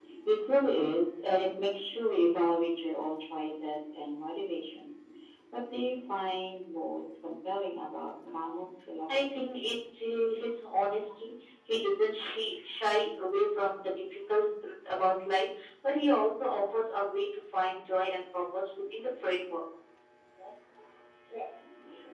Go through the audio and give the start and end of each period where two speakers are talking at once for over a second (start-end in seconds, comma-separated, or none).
none